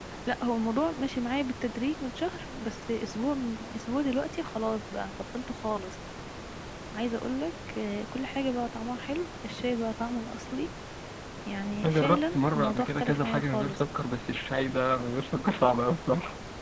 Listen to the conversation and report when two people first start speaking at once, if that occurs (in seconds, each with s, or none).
11.8 s